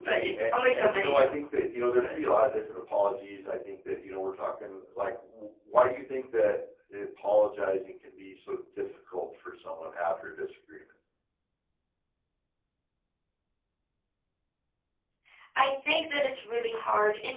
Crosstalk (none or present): present